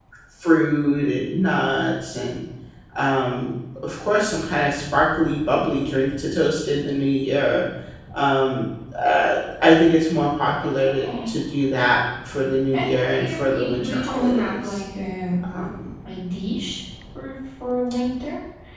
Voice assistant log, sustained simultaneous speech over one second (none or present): present